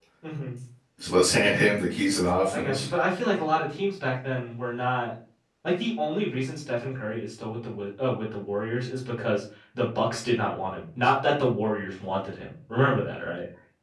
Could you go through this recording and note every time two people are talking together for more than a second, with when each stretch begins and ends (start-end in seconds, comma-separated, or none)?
none